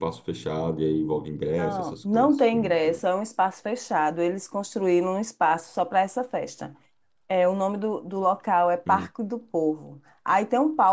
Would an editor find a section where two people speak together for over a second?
Yes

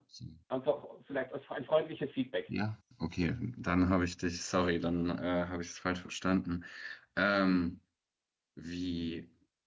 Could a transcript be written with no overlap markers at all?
Yes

